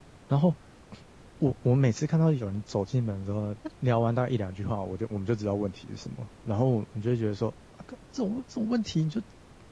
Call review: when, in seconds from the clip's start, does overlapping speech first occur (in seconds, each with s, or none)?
none